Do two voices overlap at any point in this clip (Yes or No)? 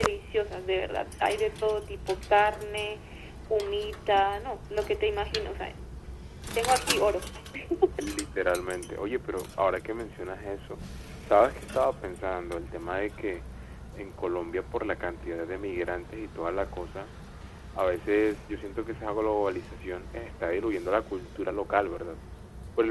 No